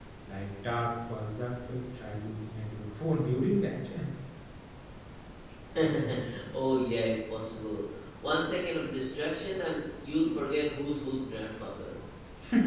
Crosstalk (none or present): none